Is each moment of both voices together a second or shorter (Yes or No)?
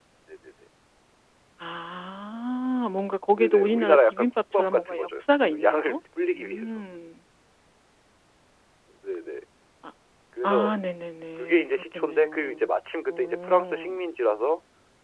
No